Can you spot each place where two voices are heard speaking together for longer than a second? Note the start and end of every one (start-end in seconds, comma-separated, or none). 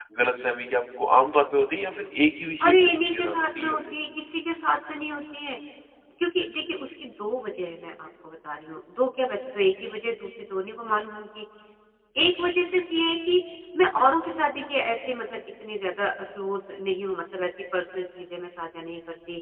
2.6-4.0